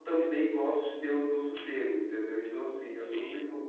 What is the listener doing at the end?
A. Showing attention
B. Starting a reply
A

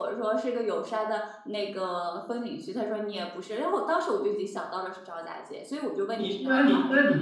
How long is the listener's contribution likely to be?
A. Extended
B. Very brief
A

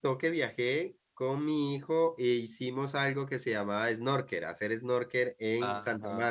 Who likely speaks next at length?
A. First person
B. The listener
B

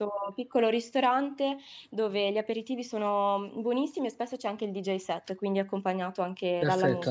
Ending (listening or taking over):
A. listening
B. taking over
B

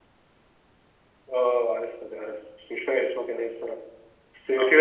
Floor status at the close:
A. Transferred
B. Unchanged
B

